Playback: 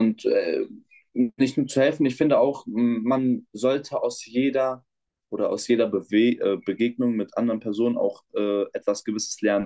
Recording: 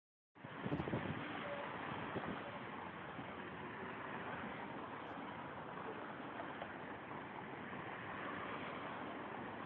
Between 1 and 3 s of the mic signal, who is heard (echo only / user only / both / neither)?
neither